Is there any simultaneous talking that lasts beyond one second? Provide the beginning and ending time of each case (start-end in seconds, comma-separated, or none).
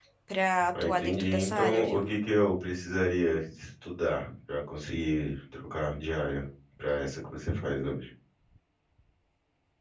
0.8-2.1